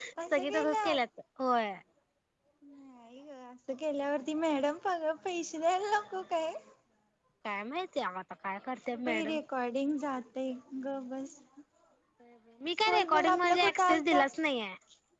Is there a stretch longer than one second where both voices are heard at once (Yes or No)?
Yes